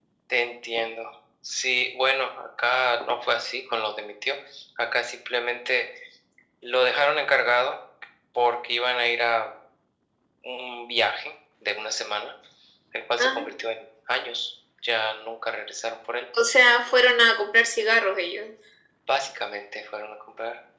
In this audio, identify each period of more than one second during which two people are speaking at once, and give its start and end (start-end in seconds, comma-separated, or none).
none